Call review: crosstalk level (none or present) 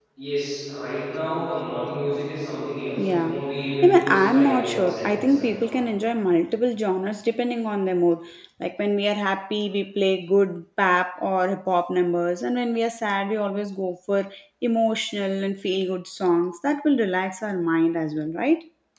present